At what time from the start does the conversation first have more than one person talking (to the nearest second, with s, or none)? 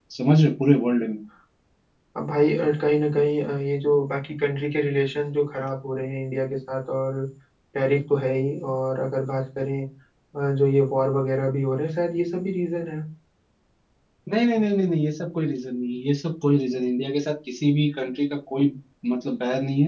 none